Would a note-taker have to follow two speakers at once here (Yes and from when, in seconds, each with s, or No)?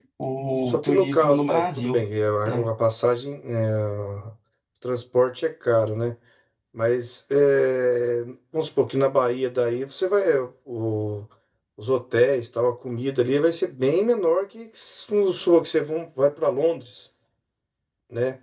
Yes, from 0.7 s